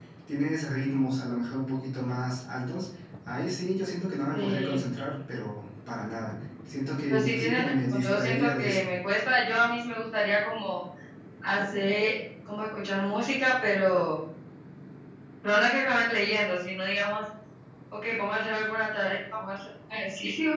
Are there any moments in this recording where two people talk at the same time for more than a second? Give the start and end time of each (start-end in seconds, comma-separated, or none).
7.1-8.8